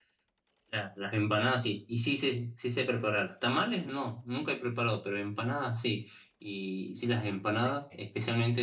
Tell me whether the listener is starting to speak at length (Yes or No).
No